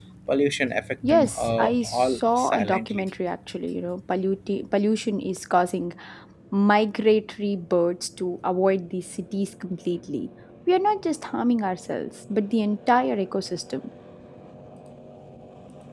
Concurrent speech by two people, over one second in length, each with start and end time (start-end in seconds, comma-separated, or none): 1.0-3.1